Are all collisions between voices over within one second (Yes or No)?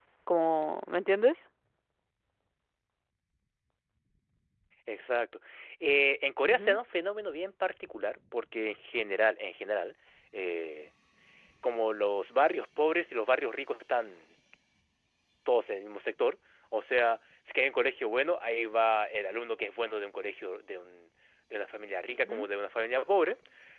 Yes